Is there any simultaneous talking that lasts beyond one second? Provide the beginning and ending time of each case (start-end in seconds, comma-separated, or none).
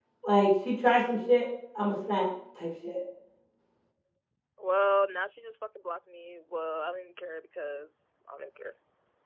none